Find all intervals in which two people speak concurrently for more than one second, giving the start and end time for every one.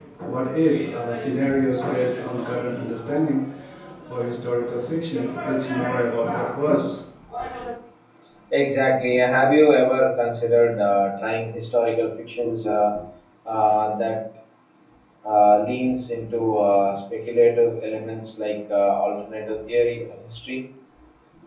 none

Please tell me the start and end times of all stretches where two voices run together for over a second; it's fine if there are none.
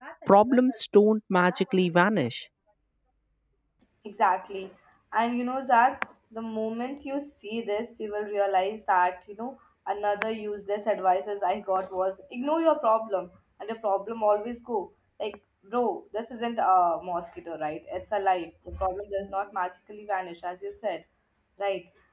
none

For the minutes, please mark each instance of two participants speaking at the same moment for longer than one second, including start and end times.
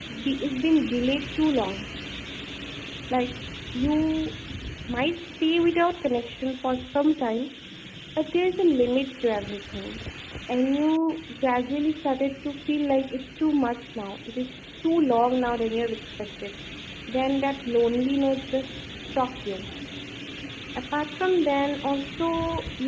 none

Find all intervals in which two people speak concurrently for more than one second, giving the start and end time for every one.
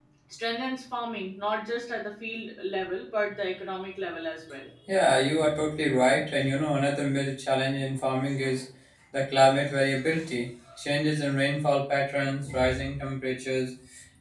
none

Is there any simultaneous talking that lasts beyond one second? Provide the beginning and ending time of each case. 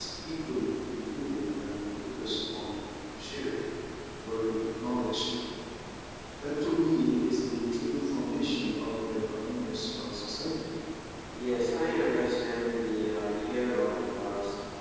none

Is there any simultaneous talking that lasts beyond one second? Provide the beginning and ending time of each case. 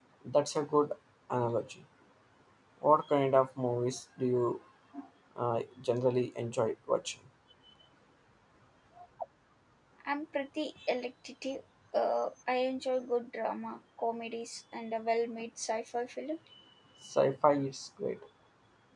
none

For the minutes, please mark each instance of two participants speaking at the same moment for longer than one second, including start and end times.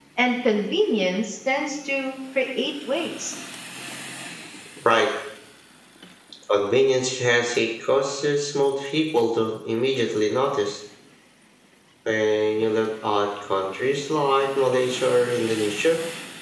none

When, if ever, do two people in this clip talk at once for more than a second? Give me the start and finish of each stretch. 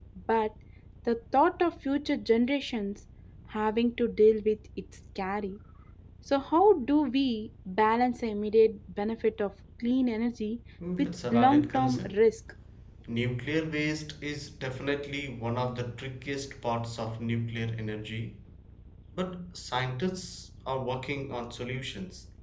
11.0-12.2

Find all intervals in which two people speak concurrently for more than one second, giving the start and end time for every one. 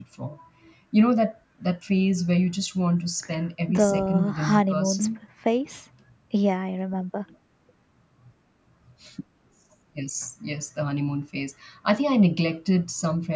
3.7-5.1

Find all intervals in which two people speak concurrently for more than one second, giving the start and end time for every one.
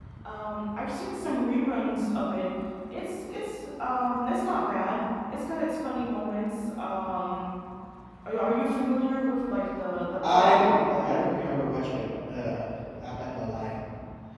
none

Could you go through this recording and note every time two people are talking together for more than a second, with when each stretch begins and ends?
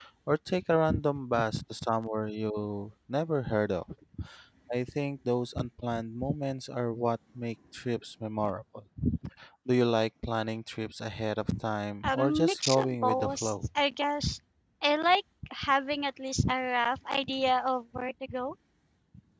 12.0-13.7

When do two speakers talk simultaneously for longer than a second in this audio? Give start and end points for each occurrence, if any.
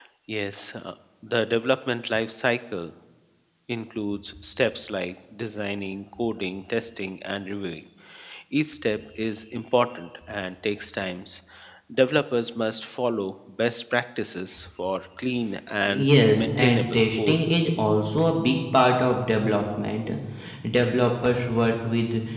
16.1-17.4

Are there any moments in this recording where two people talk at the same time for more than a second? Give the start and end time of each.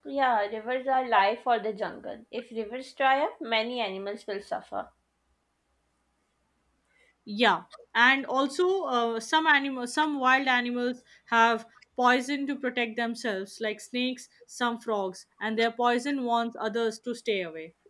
none

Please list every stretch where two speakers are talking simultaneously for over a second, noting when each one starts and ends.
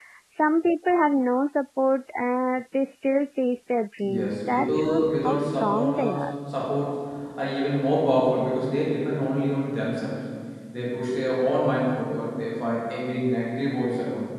4.0-6.2

